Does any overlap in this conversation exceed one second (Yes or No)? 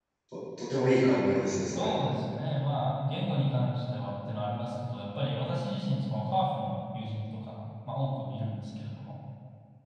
No